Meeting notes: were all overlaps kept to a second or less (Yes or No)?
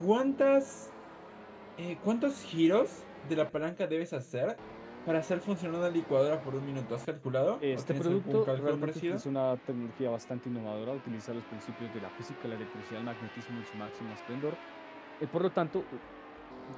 No